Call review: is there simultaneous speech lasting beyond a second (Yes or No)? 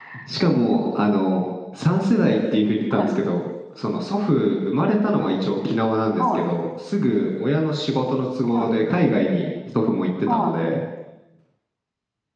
No